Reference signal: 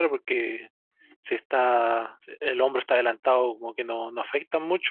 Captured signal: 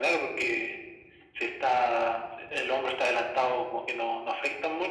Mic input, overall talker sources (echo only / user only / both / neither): echo only